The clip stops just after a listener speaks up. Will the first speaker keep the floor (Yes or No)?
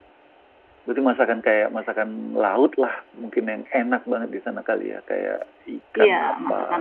No